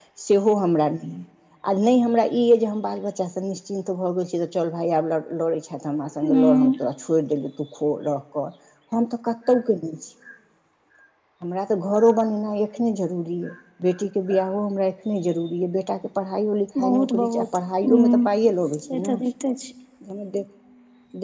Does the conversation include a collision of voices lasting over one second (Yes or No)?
Yes